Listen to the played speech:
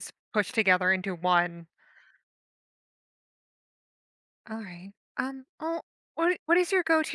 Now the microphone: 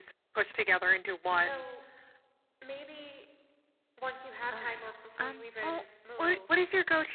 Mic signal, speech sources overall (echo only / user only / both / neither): both